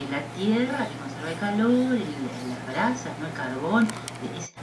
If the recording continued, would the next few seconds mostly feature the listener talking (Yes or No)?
No